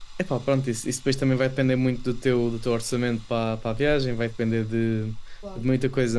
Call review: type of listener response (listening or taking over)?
listening